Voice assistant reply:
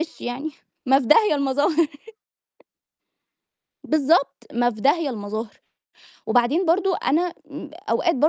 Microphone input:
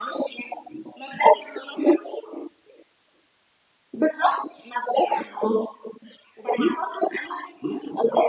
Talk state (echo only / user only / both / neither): echo only